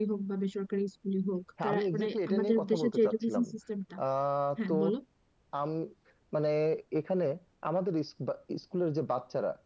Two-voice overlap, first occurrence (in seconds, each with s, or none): 1.6 s